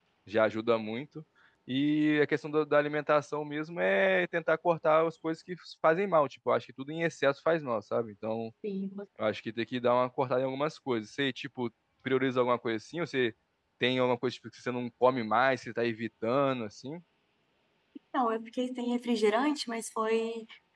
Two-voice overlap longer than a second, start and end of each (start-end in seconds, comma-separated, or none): none